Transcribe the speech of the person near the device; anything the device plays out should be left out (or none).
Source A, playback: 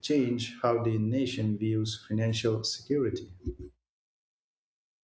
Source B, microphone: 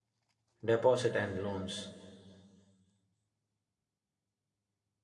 deposit and loans,